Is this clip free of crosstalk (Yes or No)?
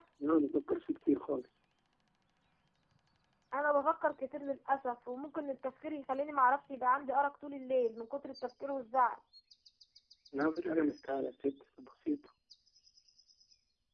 Yes